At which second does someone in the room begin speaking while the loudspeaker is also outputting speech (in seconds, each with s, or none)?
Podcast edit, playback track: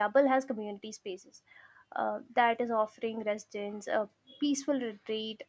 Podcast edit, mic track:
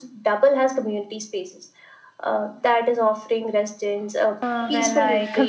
4.4 s